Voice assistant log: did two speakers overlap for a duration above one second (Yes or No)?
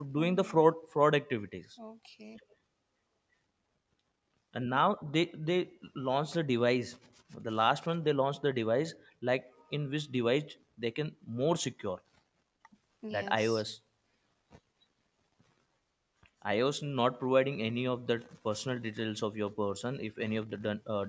No